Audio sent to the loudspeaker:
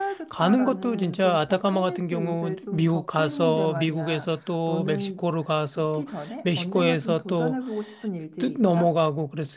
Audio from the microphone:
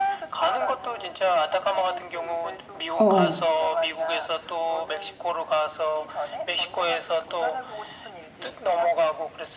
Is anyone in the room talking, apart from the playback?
Yes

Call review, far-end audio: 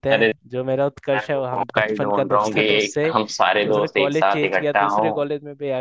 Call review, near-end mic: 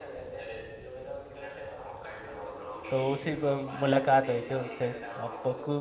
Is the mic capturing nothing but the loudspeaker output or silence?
No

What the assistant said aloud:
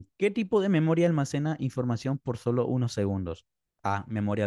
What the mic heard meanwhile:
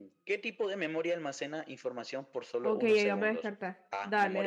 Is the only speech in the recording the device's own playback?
No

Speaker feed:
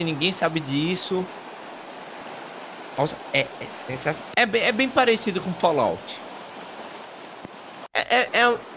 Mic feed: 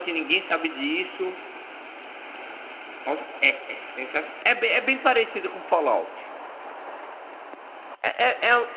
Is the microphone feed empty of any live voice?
Yes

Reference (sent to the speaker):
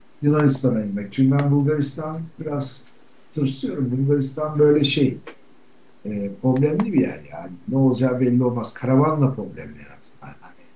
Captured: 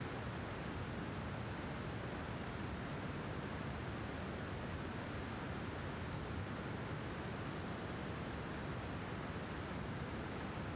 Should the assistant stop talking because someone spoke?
No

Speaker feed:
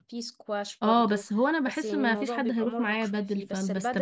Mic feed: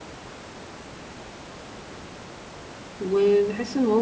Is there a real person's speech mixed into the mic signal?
Yes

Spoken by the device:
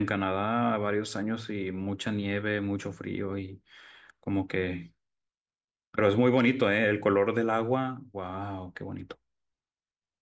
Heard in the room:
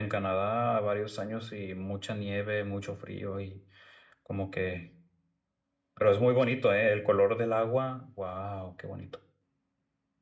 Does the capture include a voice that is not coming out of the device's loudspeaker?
No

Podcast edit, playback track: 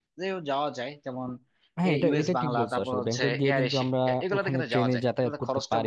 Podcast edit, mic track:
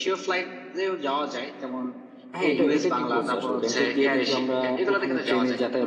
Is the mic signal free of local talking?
Yes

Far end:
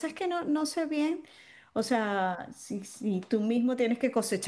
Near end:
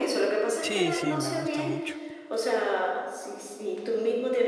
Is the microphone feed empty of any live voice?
No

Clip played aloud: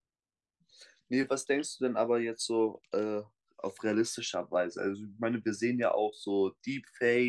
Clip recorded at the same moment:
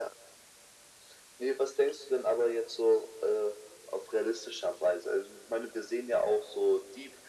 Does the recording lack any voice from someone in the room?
Yes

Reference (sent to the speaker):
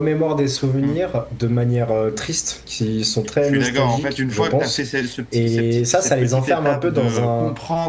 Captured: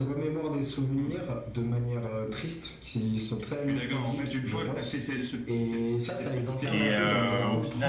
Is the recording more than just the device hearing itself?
Yes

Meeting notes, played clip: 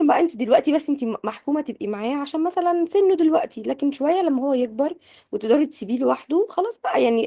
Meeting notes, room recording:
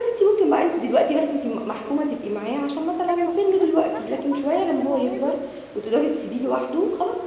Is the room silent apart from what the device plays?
No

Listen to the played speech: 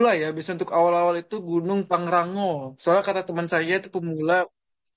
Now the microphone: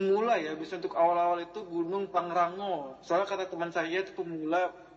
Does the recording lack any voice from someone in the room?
Yes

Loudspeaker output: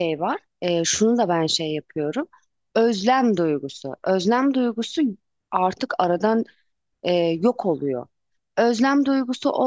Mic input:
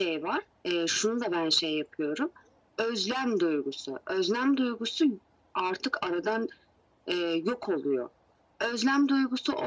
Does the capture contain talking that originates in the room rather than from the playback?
No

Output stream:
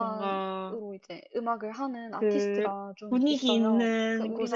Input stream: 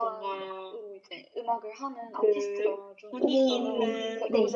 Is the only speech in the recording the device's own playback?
No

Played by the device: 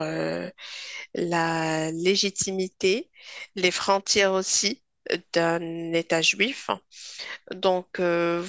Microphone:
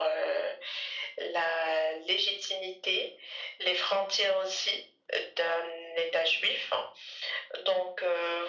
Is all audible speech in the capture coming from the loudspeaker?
Yes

